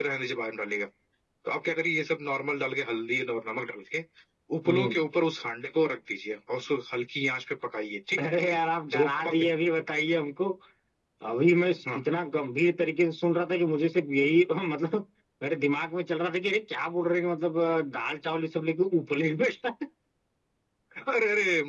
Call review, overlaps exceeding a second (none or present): none